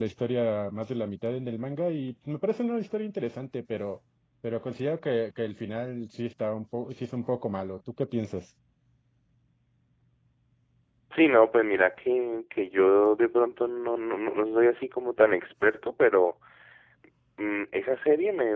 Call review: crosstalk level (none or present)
none